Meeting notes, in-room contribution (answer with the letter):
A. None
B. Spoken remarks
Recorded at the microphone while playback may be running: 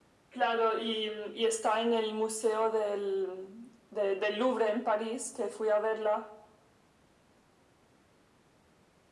A